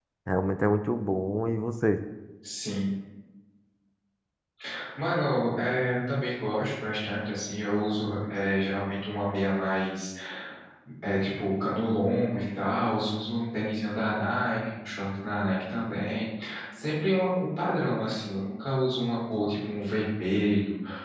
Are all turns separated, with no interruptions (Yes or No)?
Yes